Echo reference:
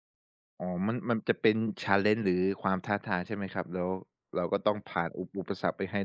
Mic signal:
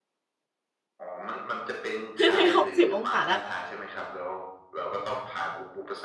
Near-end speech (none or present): present